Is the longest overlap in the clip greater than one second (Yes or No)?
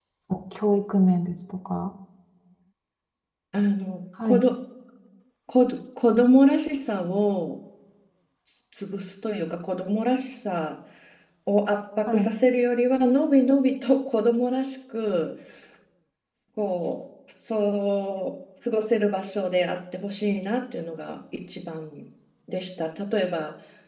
No